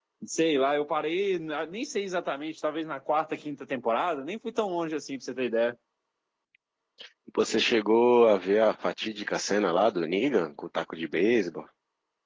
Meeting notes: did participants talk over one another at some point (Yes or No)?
No